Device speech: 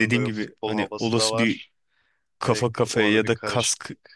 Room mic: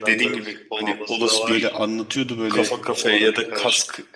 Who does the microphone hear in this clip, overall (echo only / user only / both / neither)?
both